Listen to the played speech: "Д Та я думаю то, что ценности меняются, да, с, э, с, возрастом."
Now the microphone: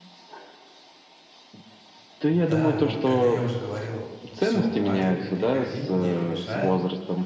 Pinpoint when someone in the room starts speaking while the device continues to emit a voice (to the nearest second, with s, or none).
2 s